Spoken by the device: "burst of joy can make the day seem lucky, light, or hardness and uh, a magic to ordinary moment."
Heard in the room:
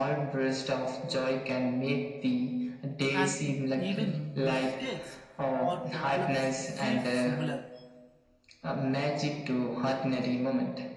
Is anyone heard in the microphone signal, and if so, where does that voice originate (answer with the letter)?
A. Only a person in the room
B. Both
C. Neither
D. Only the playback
B